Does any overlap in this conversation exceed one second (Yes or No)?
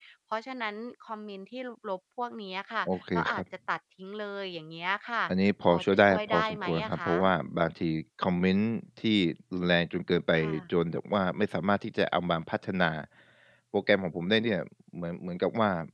Yes